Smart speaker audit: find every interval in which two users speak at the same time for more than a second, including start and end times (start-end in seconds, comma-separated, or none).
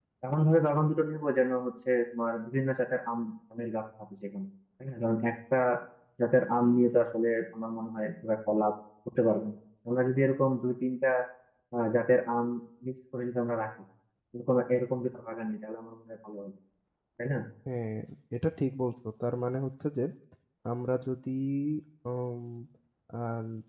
none